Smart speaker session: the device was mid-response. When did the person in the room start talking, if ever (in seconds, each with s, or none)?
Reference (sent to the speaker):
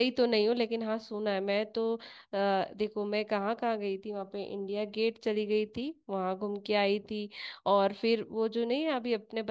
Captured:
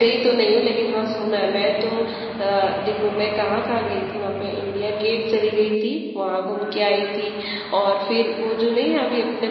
none